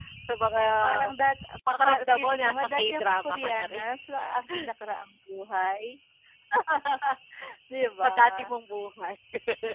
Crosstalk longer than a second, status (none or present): present